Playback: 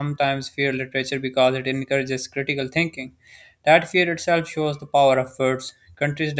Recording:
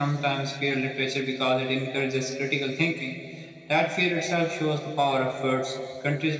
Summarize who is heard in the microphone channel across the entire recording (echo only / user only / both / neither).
echo only